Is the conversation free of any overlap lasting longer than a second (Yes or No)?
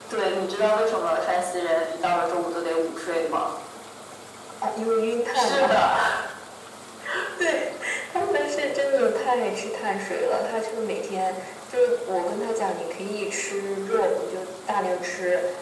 Yes